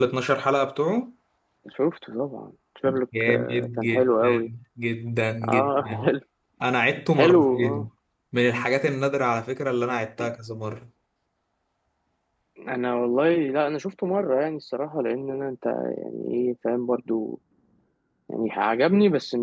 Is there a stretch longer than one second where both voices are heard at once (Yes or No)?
Yes